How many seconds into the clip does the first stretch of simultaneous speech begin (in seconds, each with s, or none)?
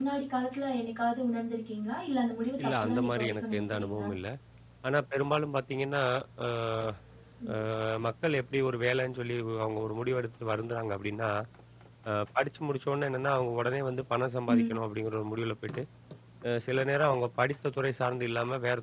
2.6 s